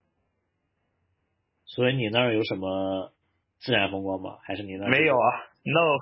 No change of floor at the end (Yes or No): No